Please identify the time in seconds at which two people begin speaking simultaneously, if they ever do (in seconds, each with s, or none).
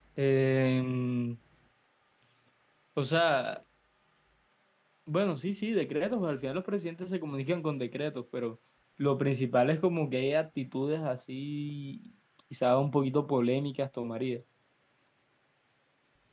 none